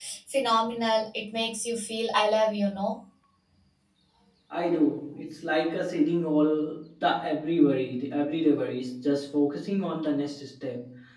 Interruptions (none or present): none